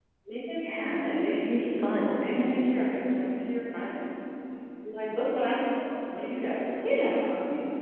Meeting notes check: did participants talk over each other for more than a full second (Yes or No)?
Yes